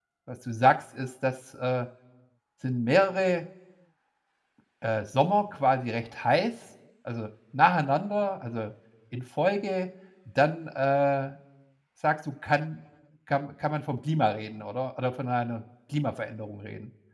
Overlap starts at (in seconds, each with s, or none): none